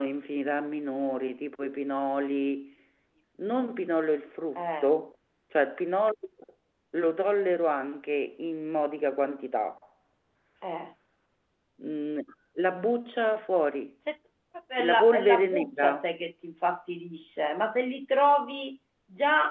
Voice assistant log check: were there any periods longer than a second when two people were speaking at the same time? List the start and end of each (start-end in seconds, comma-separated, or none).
14.8-16.1